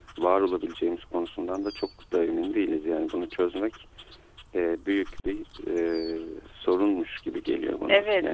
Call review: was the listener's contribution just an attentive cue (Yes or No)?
No